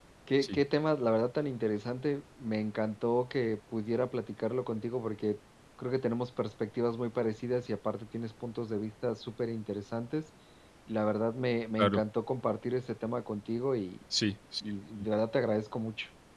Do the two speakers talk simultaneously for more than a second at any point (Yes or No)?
No